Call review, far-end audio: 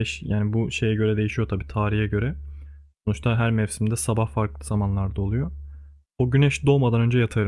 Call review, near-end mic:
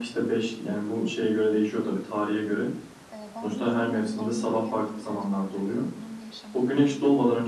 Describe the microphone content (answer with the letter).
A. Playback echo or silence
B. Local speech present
B